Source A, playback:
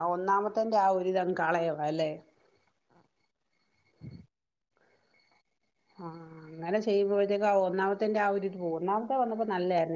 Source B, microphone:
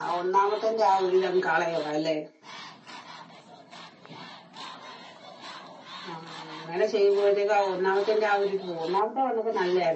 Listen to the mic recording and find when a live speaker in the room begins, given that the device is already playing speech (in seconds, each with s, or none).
none